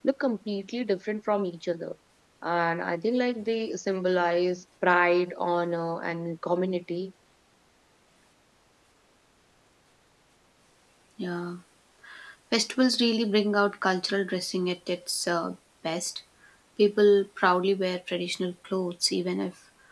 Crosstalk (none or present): none